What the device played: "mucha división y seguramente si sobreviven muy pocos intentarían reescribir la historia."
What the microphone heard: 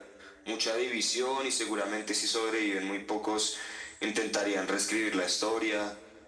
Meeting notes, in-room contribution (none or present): none